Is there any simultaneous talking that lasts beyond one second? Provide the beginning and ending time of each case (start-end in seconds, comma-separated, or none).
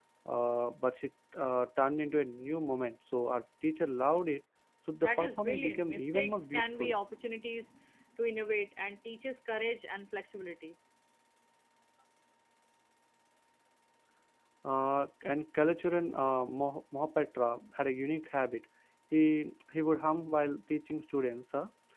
5.0-6.9